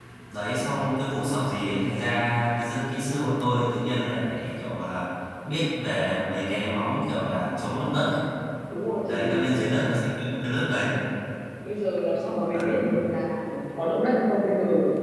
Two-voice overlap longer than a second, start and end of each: none

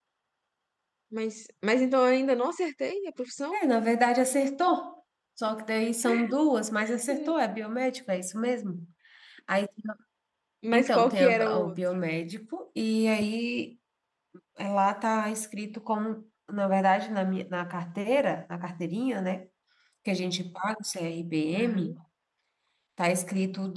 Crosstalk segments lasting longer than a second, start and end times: 10.7-12.0

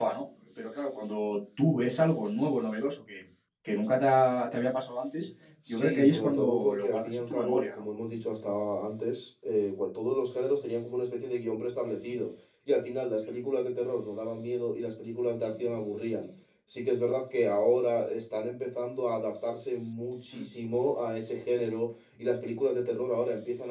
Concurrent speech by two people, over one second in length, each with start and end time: 5.7-7.8

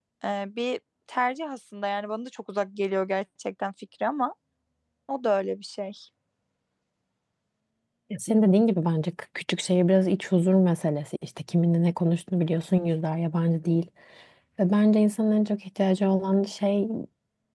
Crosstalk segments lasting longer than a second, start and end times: none

